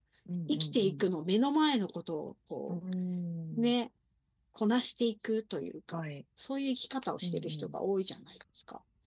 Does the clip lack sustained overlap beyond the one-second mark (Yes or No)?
Yes